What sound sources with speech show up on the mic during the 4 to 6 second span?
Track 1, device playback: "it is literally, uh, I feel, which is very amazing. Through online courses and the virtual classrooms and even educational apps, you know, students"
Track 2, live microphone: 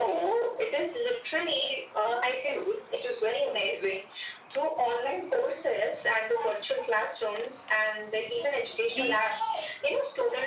echo only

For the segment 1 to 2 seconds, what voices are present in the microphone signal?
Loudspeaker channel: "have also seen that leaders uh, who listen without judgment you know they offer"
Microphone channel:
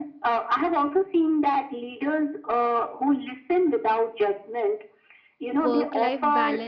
echo only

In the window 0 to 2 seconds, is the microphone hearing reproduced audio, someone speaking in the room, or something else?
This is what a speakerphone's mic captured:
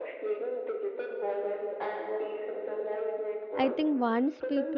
echo only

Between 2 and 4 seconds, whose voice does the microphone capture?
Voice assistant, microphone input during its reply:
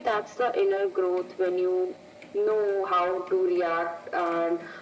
echo only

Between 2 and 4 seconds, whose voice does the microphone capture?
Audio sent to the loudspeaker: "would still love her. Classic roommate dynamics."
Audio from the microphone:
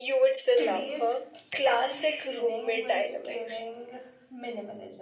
both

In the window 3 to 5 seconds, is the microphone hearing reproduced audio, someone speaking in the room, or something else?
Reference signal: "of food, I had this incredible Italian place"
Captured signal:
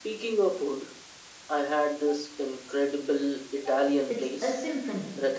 both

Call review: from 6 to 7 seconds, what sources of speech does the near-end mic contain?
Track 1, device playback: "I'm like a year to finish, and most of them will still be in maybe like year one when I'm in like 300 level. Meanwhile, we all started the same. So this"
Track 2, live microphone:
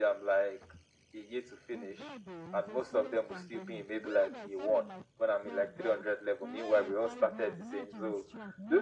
both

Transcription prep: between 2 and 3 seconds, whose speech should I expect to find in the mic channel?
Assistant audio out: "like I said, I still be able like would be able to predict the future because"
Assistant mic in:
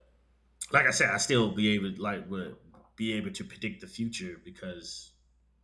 echo only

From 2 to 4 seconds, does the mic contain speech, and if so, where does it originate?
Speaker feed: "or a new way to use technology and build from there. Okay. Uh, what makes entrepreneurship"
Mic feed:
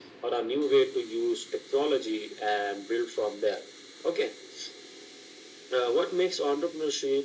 echo only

